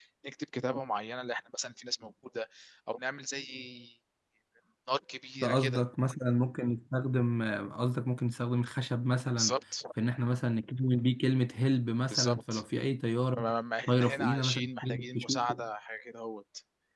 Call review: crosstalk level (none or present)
present